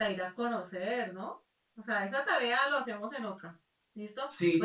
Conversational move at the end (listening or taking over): listening